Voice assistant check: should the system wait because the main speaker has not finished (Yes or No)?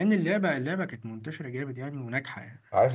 No